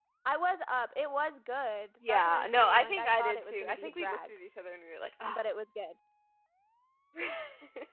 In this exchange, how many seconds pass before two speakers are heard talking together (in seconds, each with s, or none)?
2.0 s